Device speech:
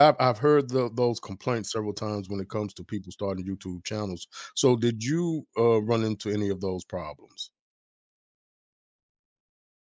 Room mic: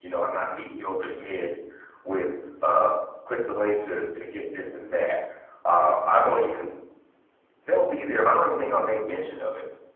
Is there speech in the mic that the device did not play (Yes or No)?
Yes